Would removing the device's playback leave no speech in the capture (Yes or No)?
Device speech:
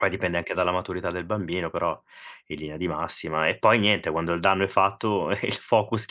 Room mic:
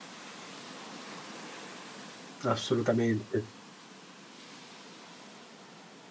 No